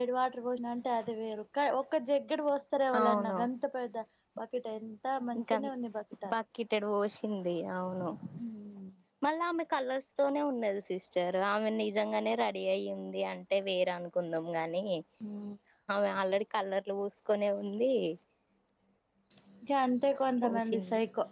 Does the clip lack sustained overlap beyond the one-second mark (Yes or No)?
Yes